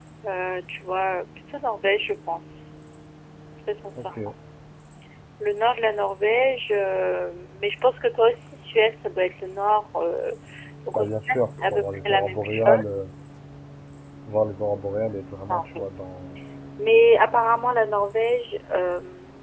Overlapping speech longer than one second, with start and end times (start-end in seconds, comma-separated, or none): 10.9-12.7